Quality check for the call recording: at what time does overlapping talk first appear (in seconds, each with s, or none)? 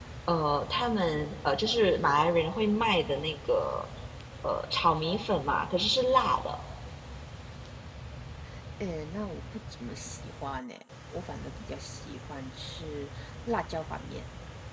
none